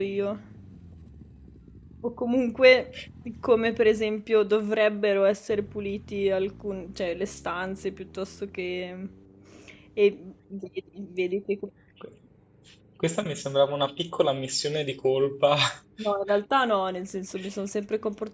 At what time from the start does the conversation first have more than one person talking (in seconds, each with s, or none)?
none